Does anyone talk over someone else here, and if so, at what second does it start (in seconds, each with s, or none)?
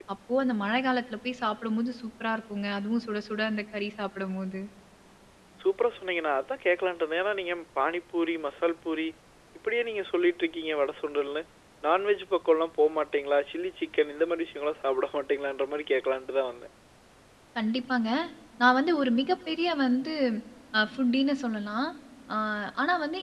none